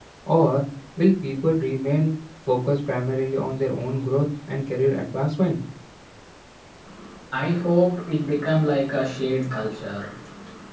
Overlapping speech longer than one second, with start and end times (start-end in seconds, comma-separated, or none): none